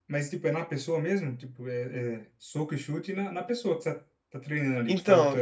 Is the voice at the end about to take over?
Yes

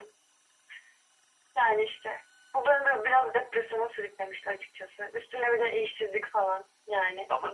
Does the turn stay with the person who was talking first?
Yes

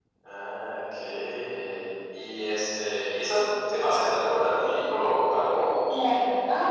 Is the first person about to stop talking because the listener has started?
Yes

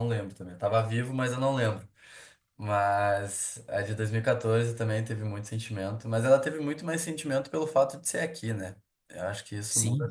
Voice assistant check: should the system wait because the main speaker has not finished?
No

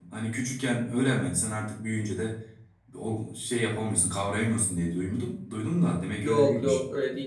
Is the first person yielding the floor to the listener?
Yes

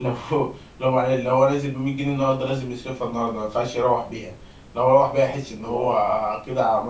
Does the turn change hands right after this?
No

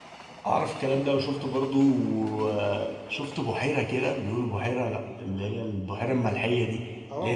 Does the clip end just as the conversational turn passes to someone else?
Yes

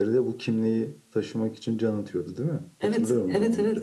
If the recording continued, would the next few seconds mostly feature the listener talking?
Yes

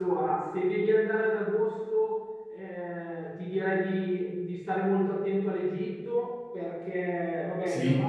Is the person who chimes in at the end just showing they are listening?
Yes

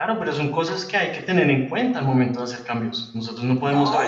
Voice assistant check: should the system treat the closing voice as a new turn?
Yes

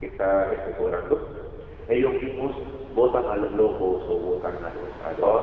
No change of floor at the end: Yes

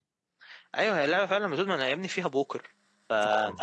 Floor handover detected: No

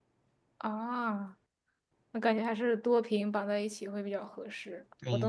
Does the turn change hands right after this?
Yes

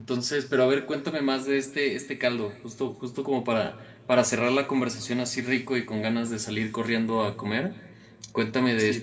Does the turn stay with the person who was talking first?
No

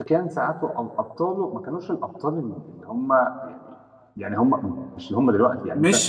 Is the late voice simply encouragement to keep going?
No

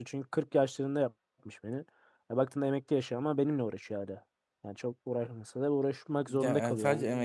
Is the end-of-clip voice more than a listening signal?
Yes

